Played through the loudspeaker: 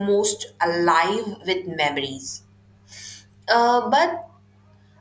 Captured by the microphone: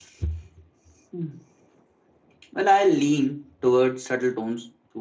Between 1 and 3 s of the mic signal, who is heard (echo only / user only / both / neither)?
user only